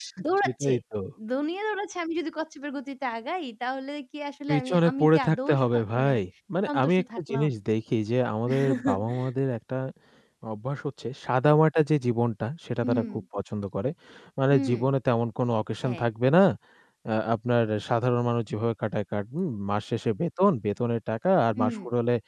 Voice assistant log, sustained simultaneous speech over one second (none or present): present